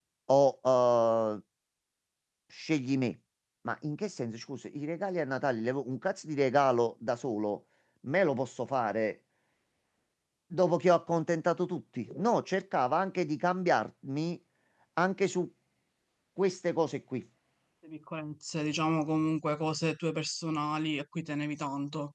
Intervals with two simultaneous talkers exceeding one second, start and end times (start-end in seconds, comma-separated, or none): none